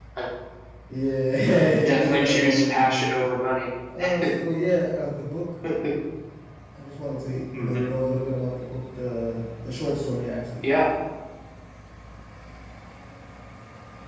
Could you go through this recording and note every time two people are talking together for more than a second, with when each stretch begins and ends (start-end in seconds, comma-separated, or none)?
1.8-3.1